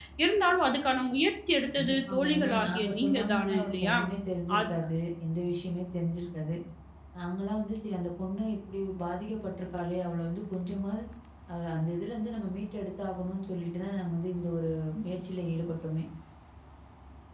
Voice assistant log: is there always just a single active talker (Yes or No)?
No